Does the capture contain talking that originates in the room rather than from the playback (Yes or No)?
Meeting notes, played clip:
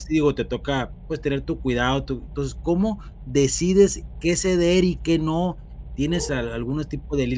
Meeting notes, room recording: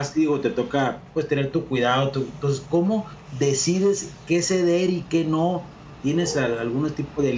No